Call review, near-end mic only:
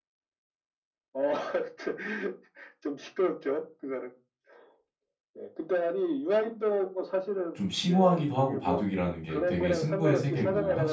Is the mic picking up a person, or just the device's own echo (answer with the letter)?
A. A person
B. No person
A